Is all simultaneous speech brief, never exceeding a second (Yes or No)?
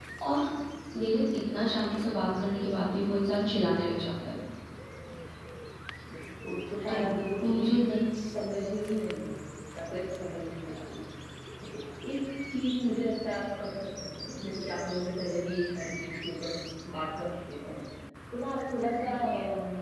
Yes